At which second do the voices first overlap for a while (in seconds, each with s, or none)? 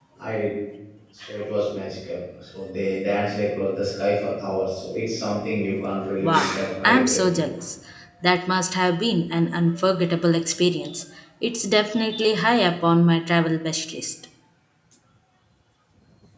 6.2 s